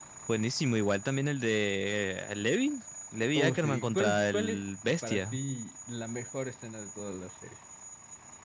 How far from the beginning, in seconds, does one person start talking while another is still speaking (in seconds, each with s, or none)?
3.4 s